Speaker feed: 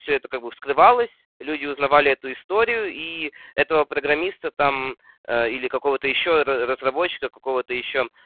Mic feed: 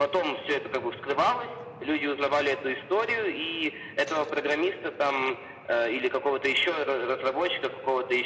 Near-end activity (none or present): none